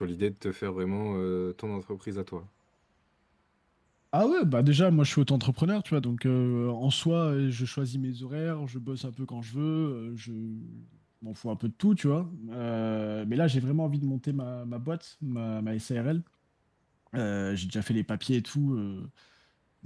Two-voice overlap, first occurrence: none

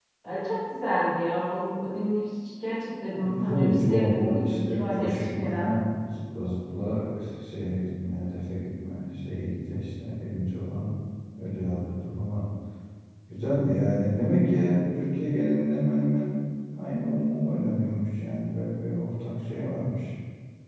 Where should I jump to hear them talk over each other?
3.2 s

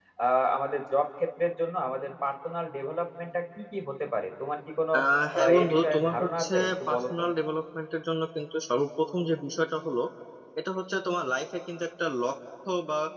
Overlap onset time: 5.4 s

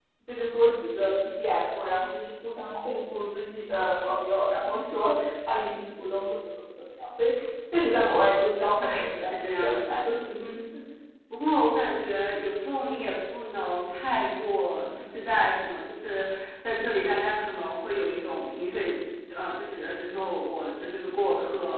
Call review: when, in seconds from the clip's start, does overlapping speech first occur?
8.8 s

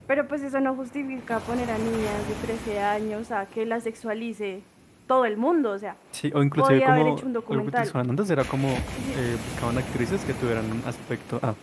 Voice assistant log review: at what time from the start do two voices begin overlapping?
6.6 s

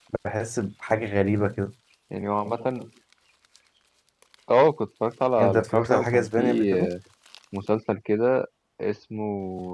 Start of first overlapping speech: 5.4 s

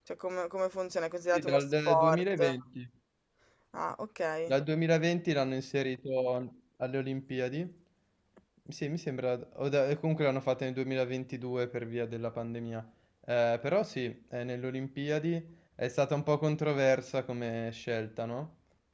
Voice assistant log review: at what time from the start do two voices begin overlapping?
1.3 s

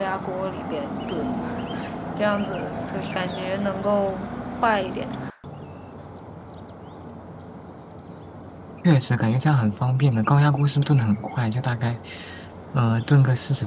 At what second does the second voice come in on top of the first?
none

